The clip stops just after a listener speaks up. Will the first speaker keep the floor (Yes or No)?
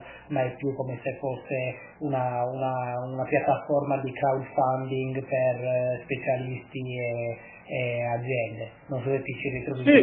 No